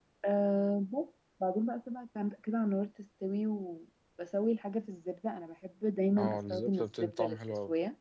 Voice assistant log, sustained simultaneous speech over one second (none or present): present